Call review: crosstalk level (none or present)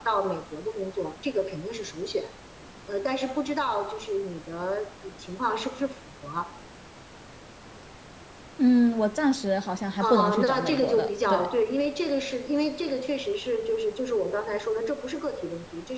present